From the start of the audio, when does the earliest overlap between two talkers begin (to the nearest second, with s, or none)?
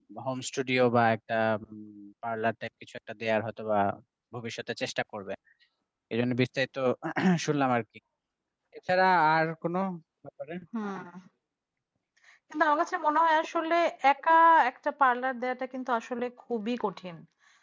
none